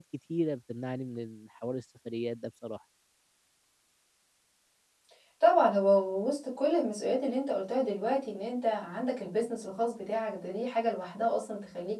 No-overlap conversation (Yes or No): Yes